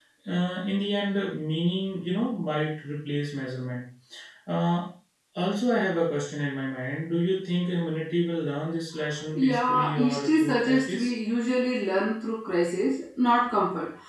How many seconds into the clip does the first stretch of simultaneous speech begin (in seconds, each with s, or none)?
9.4 s